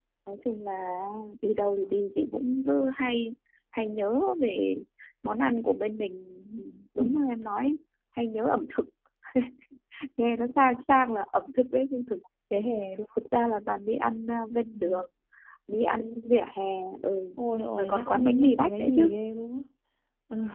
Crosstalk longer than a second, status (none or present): present